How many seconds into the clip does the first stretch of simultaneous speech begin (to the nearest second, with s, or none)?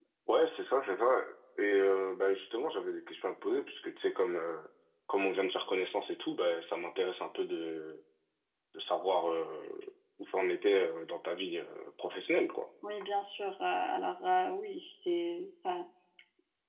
none